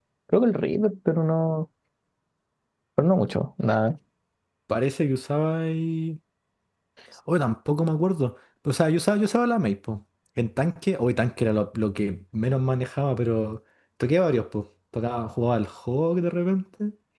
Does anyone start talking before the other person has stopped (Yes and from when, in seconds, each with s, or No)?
No